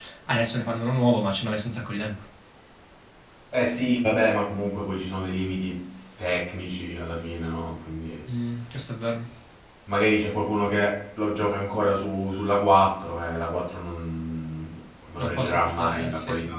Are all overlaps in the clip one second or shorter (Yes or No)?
No